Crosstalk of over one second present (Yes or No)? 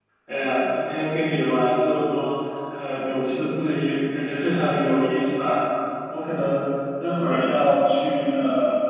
No